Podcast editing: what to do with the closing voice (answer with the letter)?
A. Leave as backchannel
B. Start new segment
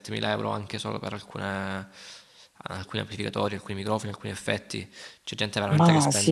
A